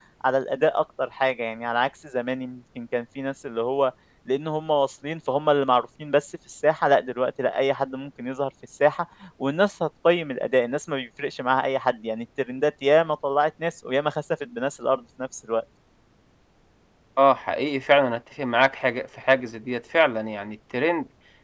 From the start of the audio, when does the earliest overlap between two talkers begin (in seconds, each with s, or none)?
none